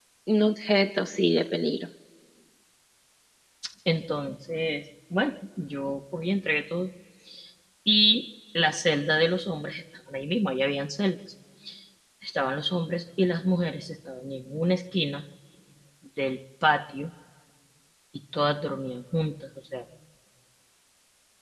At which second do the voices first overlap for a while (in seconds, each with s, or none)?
none